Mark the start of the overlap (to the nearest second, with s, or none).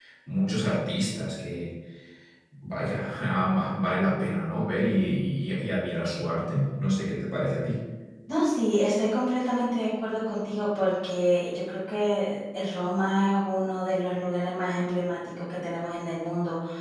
none